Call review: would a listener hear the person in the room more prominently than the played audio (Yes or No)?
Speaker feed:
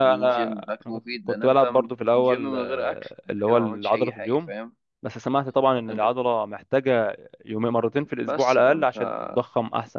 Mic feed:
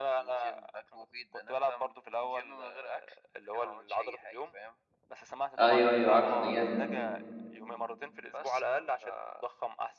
Yes